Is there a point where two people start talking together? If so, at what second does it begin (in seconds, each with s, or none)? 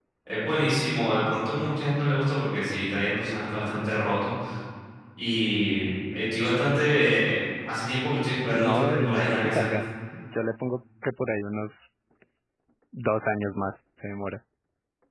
8.4 s